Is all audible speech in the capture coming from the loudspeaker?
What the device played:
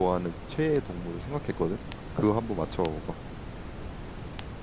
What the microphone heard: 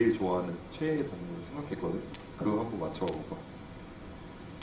Yes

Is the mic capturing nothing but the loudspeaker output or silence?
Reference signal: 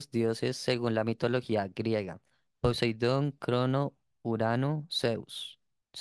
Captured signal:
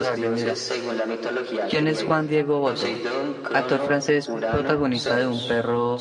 No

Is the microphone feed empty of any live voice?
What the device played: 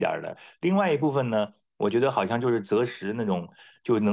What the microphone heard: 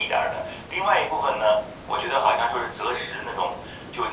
Yes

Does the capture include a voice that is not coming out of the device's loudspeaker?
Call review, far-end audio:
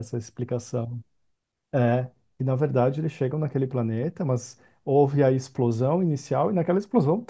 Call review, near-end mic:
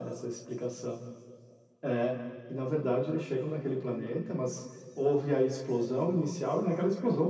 No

